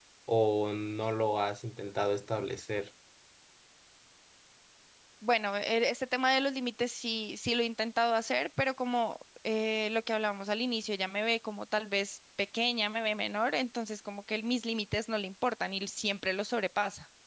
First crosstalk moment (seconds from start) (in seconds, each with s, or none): none